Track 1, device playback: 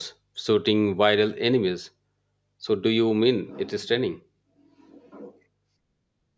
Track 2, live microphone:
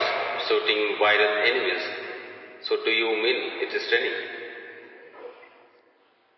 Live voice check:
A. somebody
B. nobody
B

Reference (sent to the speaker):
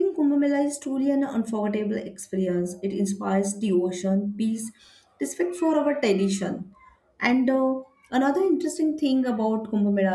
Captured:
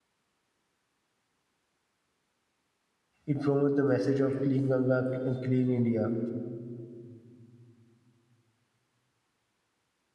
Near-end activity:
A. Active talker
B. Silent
A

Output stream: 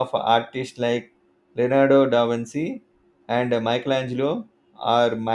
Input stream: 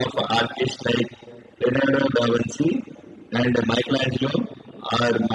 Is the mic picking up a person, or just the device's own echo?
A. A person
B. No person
B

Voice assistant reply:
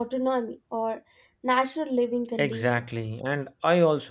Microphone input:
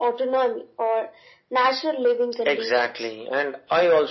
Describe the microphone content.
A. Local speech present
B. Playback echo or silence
B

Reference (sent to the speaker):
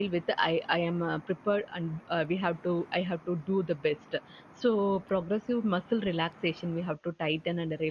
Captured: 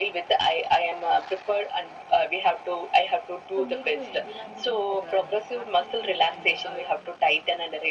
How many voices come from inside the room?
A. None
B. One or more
B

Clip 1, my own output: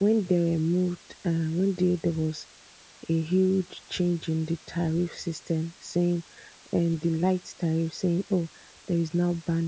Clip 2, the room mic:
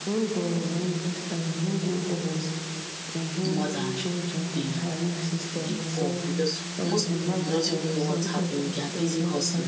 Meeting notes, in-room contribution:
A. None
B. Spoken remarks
B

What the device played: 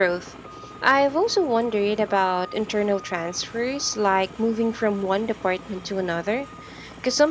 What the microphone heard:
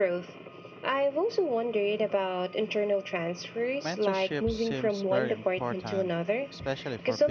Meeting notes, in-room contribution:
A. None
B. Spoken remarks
B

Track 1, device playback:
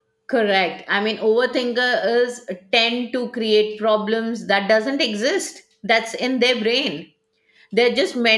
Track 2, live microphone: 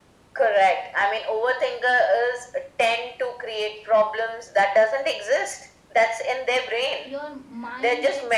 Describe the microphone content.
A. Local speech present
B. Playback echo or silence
A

